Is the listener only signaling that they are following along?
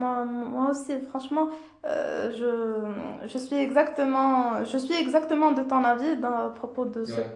Yes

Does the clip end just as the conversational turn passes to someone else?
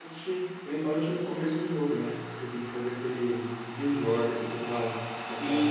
Yes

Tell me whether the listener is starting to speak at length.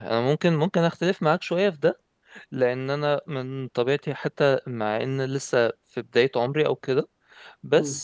No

